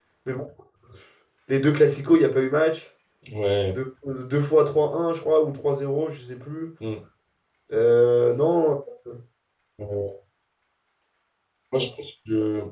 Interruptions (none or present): none